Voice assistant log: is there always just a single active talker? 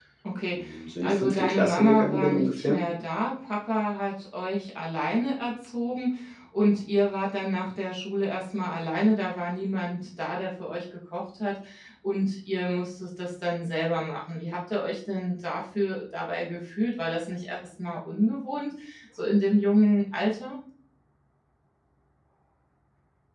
No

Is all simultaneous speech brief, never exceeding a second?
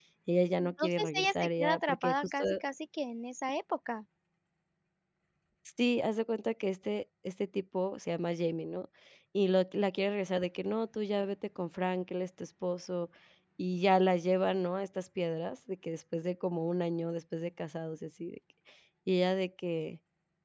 No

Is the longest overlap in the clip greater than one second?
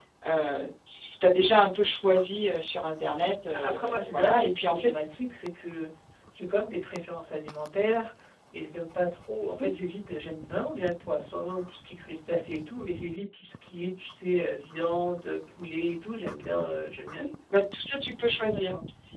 Yes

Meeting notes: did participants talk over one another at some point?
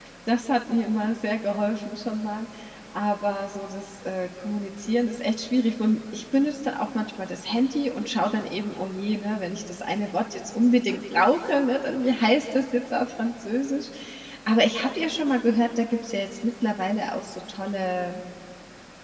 No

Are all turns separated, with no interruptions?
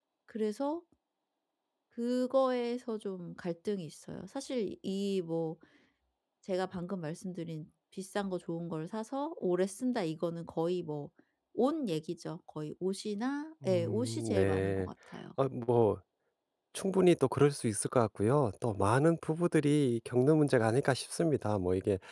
No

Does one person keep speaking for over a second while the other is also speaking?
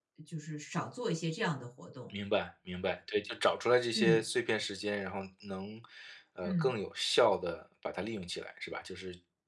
No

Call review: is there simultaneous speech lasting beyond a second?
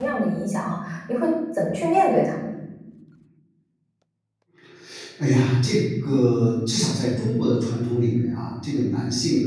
No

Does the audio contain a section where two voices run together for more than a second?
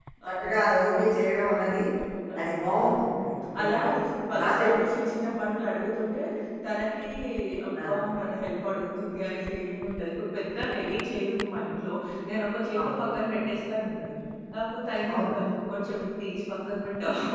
No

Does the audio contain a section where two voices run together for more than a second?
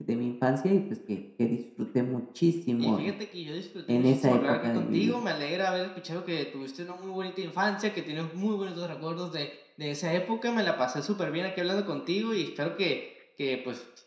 Yes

